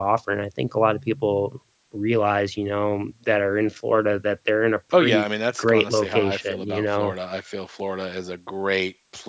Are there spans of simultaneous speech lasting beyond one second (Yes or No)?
Yes